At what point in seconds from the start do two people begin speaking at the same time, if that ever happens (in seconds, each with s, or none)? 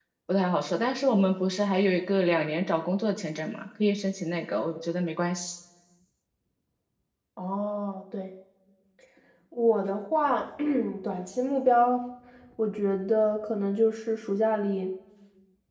none